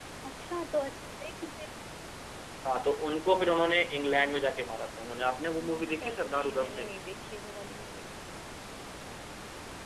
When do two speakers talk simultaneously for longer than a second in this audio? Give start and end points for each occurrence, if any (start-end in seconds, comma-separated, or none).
5.6-6.9